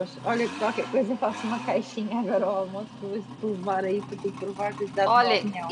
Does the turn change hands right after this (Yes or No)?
Yes